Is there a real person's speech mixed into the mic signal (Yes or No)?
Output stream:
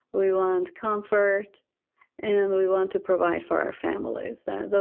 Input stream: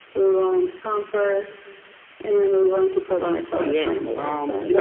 Yes